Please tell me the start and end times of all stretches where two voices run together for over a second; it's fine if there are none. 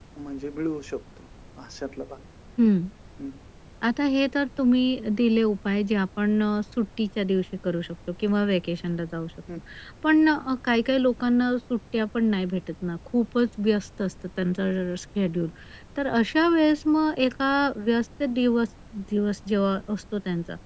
none

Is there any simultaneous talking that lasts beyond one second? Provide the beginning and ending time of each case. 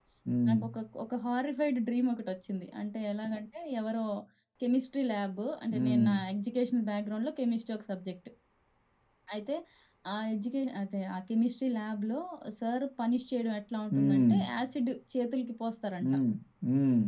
none

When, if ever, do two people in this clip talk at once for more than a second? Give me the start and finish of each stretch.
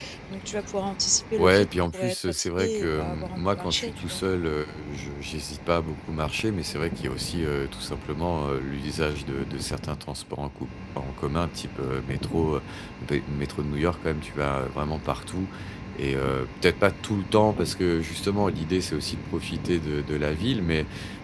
1.4-4.2

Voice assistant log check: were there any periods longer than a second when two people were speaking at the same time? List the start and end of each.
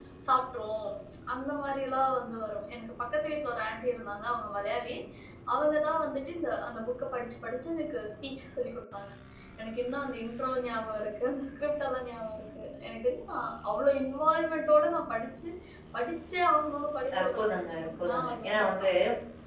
17.2-18.9

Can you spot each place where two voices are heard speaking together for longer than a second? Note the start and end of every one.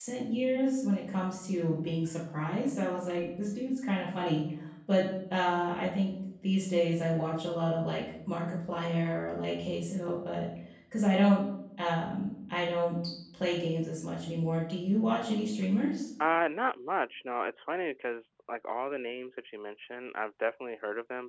none

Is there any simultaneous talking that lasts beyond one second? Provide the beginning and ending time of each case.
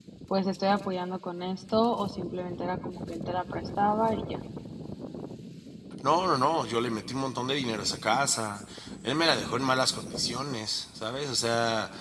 none

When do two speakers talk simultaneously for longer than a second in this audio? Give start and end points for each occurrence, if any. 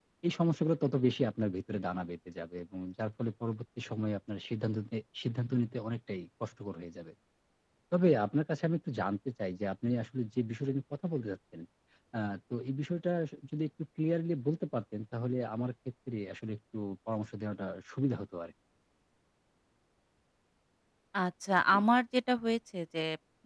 none

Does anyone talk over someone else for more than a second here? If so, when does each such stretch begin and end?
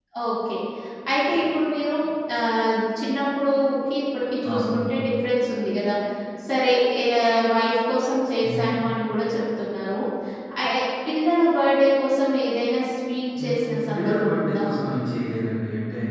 13.4-14.6

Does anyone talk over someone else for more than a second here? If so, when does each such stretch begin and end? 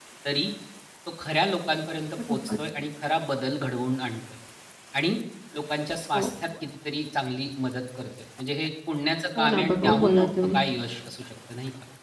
9.4-10.6

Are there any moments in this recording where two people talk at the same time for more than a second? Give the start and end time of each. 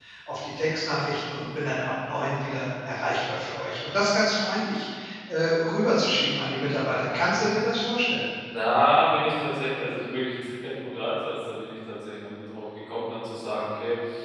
none

